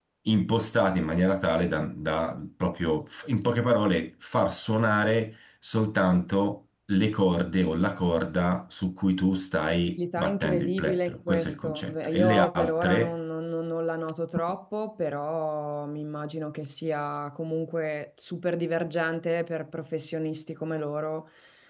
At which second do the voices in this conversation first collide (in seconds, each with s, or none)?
10.0 s